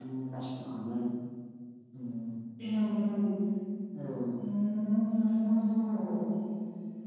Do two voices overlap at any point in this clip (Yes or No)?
No